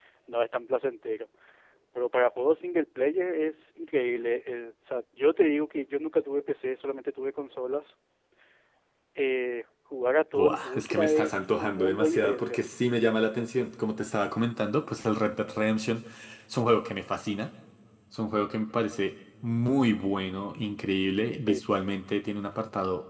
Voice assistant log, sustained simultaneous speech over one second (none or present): present